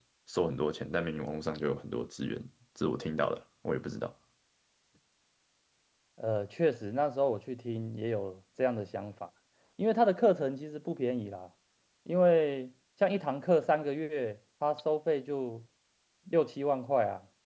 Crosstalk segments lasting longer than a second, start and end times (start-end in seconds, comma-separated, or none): none